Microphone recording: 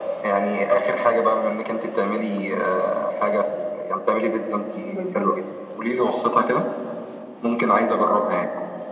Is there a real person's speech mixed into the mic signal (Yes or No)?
Yes